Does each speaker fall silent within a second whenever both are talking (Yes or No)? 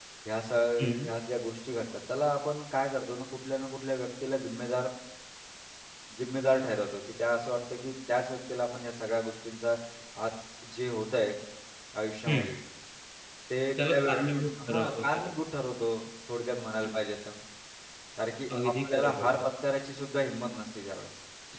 No